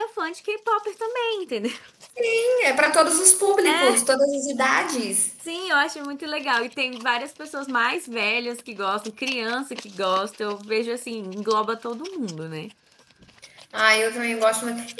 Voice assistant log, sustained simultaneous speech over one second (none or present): none